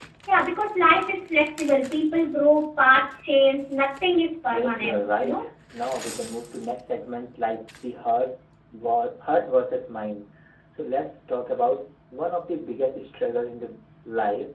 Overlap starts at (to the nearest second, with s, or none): 4 s